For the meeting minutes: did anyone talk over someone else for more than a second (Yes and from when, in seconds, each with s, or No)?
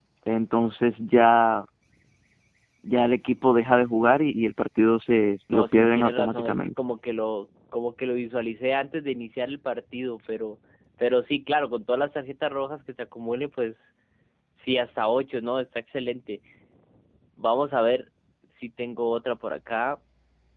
Yes, from 5.5 s